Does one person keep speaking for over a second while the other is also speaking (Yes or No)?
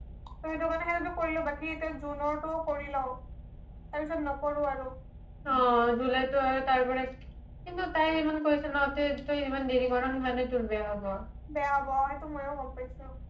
No